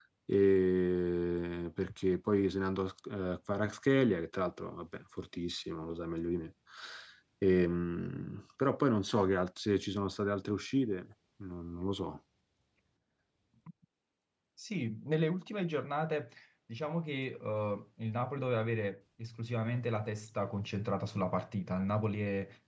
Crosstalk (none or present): none